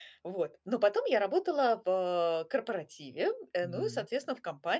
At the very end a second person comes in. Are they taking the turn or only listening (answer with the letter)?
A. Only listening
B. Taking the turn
A